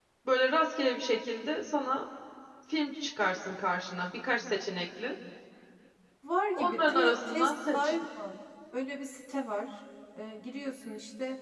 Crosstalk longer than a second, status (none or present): present